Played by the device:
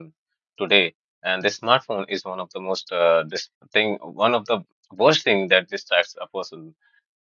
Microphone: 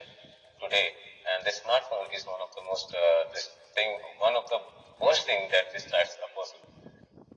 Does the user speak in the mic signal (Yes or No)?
No